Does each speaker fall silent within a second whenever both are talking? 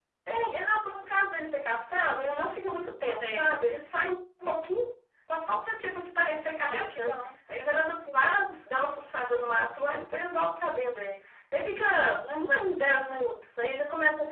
Yes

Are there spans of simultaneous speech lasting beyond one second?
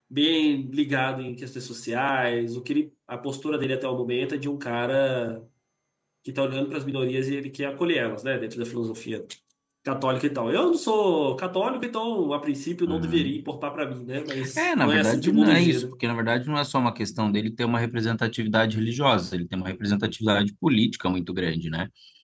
Yes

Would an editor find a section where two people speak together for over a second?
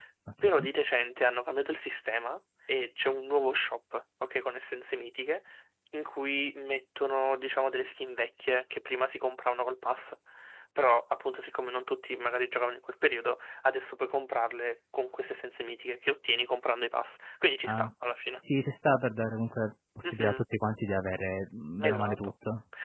No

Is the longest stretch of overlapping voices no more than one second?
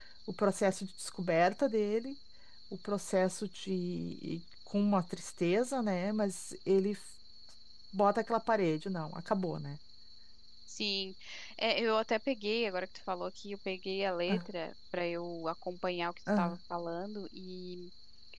Yes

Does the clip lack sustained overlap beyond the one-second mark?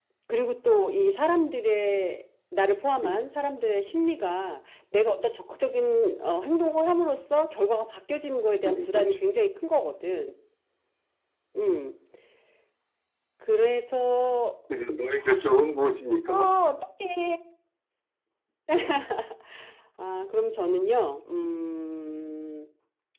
Yes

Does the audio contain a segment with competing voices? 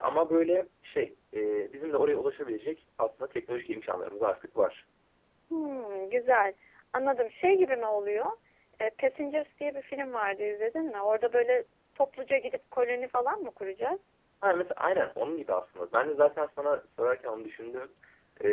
No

